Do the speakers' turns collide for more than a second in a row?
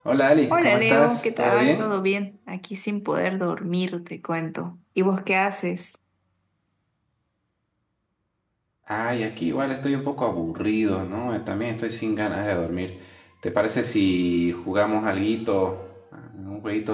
Yes, from 0.5 s

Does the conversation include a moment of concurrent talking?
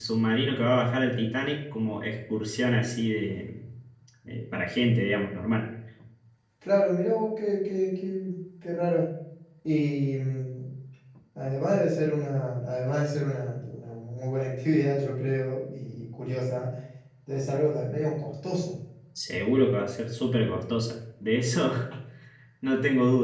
No

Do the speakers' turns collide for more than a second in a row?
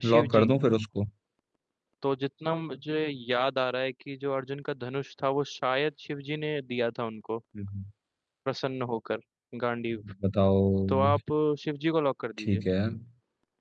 No

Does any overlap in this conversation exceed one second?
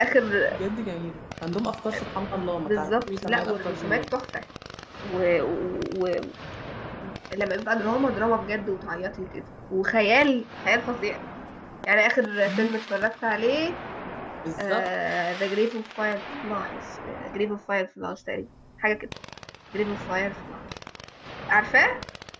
Yes, from 2.6 s

